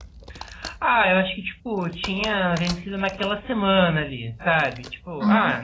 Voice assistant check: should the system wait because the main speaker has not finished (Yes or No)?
Yes